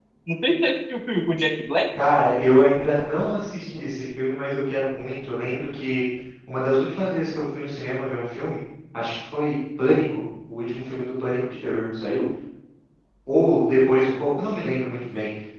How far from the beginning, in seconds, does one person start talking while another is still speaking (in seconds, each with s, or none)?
none